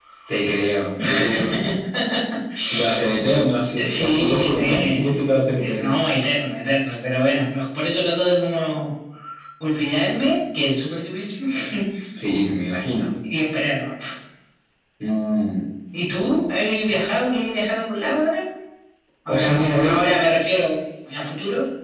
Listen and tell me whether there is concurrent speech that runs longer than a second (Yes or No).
Yes